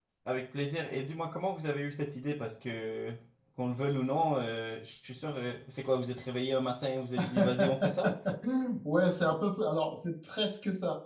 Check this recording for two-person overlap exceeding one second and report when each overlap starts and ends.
none

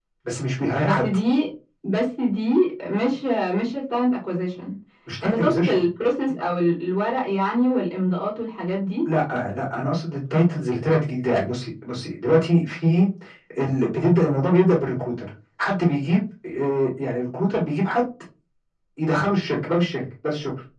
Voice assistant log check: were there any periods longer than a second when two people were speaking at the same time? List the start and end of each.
none

